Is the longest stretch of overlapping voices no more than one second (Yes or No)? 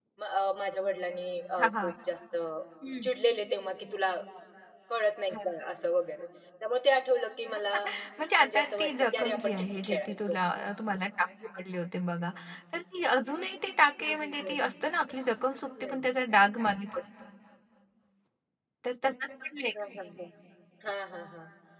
No